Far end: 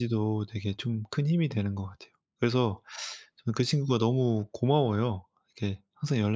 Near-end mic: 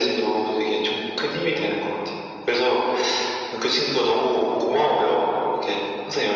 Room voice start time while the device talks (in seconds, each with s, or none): none